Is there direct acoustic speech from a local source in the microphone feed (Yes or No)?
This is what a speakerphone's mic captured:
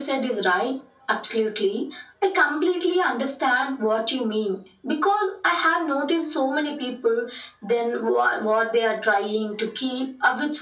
No